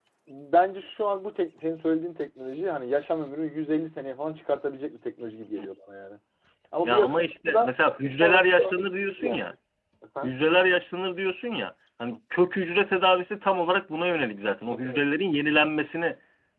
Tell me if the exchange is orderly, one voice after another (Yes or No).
No